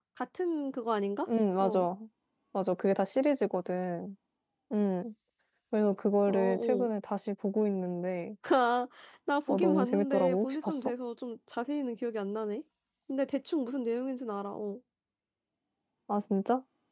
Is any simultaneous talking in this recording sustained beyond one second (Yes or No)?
Yes